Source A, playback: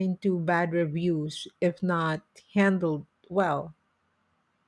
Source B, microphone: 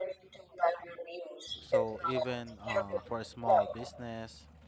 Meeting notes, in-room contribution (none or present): present